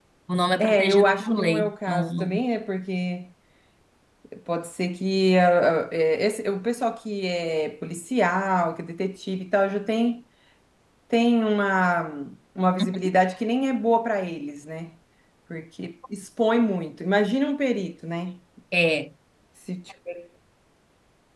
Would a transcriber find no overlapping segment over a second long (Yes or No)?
No